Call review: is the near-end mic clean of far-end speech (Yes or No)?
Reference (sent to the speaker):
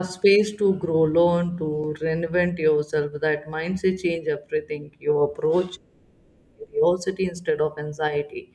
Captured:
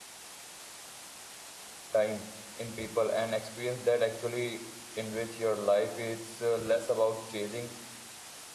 Yes